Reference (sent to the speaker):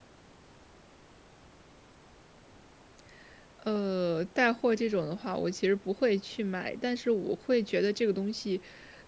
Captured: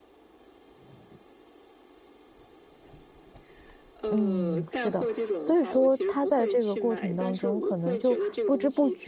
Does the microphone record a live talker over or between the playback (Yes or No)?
Yes